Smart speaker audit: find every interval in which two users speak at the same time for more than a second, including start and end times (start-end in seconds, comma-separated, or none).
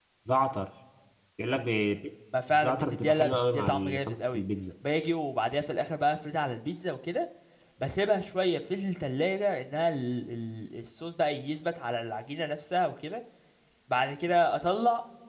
2.5-4.4